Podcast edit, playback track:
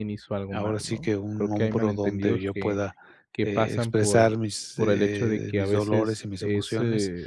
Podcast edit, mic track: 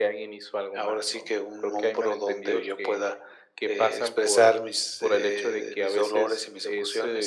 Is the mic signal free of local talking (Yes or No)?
Yes